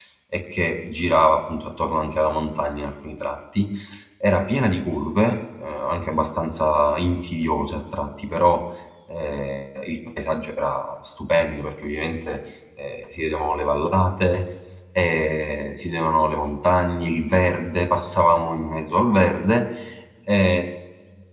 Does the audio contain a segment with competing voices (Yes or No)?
No